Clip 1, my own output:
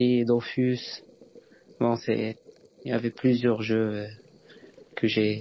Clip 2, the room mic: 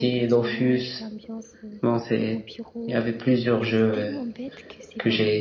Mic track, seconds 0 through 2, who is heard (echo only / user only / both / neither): both